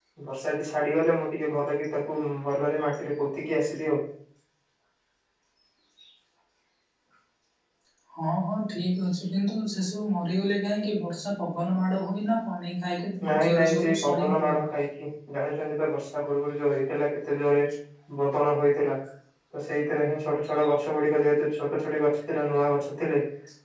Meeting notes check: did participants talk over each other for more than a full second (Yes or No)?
Yes